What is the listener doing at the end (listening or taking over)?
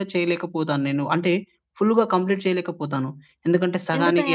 listening